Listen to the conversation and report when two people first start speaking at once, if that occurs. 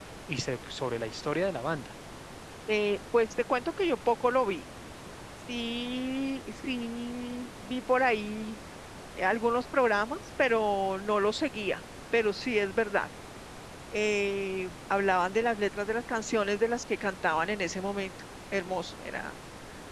none

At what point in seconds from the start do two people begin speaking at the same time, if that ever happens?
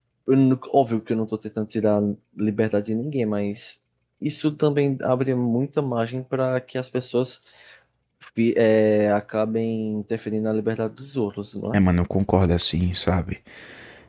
none

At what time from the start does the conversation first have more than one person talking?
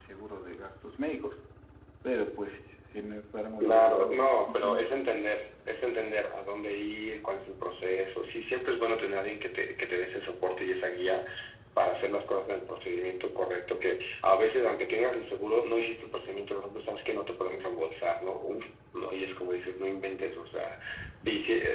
3.6 s

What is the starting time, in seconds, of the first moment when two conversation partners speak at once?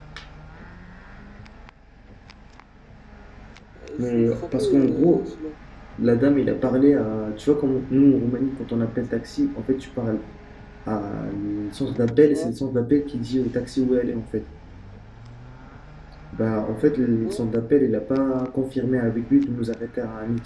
4.0 s

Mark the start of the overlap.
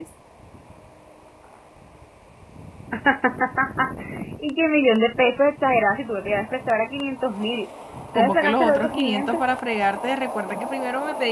8.2 s

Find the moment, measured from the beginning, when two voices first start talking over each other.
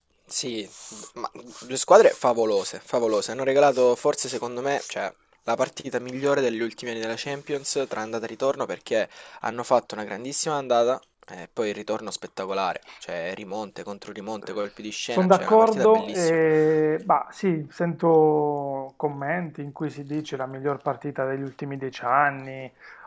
15.1 s

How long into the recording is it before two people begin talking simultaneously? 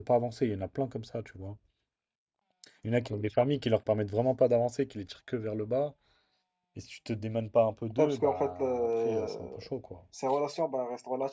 8.0 s

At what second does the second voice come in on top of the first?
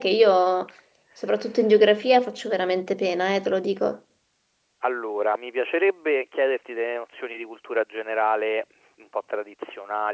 none

